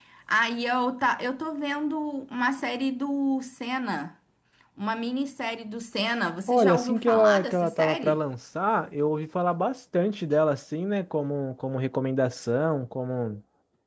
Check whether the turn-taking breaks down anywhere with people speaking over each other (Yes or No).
Yes